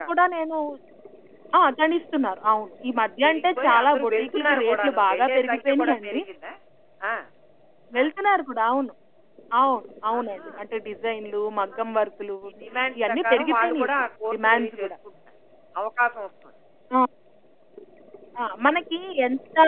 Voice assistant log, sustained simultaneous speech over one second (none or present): present